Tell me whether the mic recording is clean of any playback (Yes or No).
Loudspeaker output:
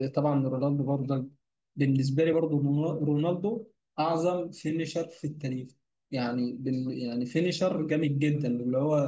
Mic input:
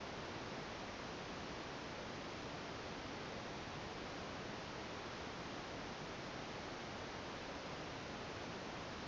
Yes